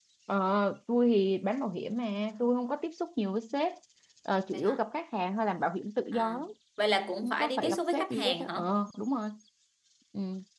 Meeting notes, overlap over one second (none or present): present